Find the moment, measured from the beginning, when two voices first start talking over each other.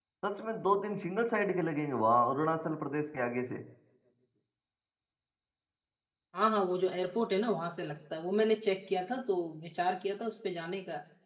none

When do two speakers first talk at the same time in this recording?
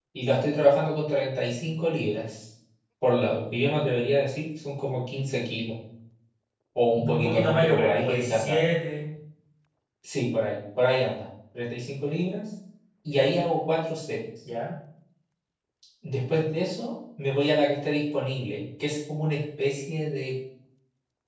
7.0 s

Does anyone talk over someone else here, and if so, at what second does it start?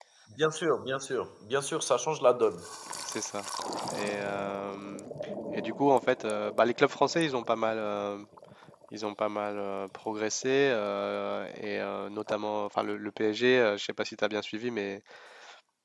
none

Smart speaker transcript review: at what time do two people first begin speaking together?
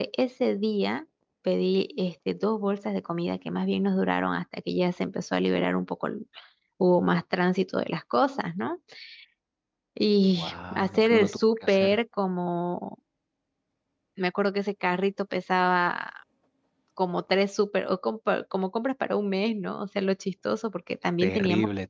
10.3 s

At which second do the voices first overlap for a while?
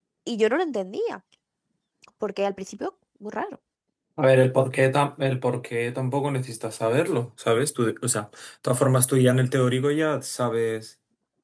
none

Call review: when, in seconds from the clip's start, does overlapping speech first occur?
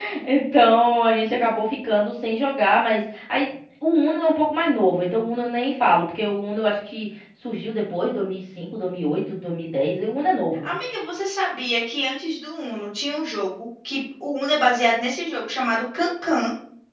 none

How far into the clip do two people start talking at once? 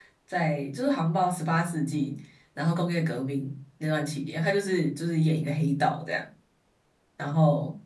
none

